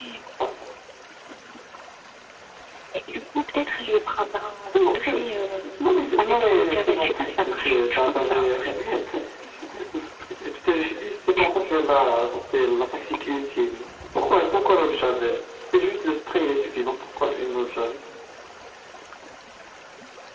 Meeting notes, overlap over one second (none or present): present